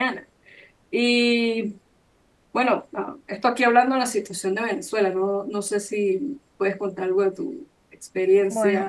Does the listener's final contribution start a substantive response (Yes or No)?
Yes